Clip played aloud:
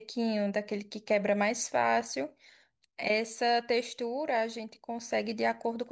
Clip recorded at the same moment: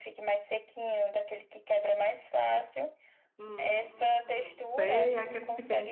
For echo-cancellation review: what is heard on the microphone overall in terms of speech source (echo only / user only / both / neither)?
both